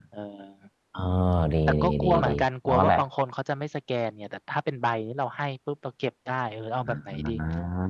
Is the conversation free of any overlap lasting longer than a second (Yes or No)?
No